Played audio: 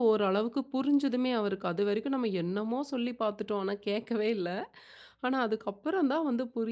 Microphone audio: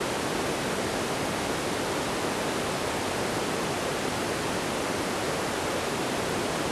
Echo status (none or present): none